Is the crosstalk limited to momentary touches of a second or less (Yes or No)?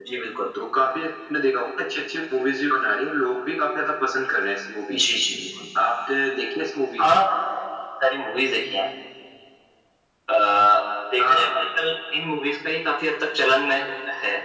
Yes